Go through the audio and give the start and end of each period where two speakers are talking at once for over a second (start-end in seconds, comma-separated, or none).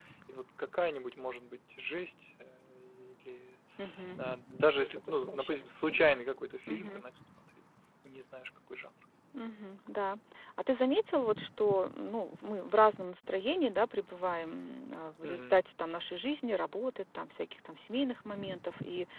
4.8-6.2